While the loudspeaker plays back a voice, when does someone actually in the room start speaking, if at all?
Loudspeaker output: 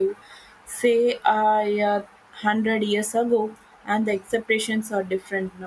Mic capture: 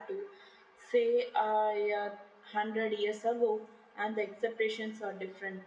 none

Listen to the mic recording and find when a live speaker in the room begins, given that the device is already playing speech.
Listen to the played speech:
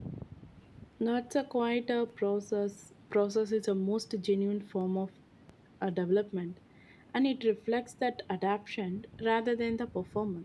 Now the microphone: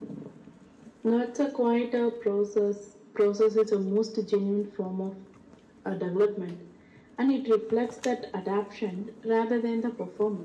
none

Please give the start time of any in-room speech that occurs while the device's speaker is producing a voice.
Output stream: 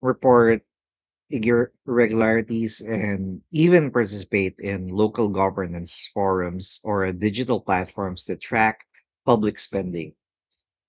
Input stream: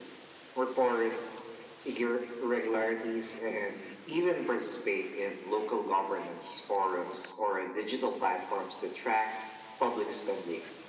none

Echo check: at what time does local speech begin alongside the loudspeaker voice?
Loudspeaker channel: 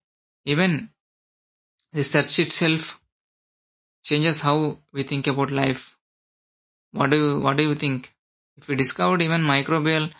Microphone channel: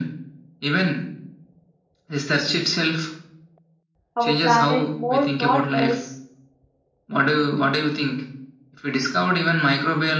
4 s

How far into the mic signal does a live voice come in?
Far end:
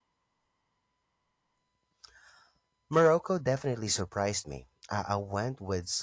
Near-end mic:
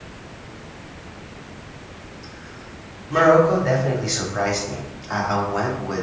none

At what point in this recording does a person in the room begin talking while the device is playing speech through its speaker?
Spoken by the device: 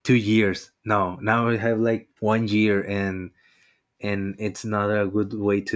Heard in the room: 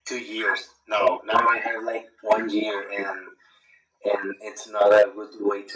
none

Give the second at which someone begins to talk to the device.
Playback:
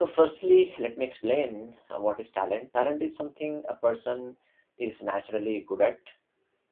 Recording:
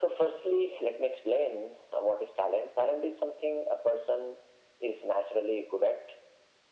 none

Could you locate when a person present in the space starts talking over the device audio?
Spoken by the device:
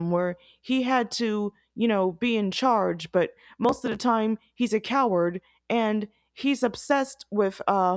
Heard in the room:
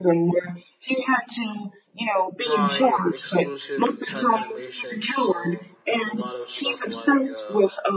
2 s

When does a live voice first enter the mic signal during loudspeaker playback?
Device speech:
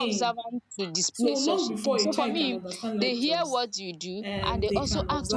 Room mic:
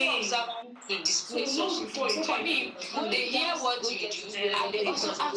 3 s

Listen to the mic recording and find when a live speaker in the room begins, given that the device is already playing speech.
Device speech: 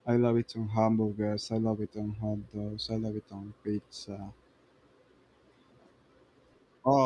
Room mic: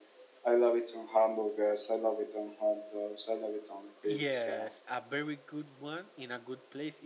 4 s

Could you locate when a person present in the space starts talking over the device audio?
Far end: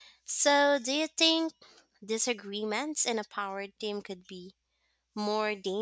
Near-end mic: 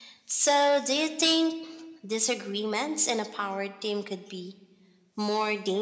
none

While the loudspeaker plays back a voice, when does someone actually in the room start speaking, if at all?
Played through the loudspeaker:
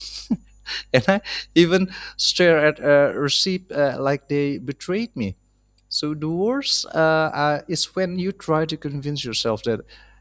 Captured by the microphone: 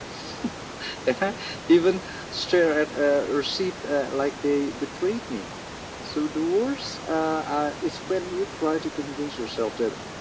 none

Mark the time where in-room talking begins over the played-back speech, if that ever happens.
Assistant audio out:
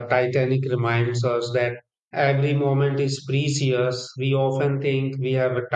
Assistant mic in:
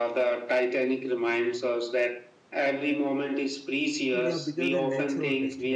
4 s

